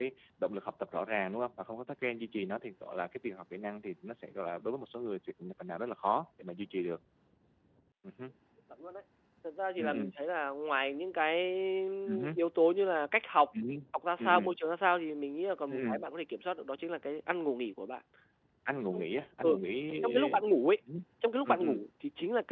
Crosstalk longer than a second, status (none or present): none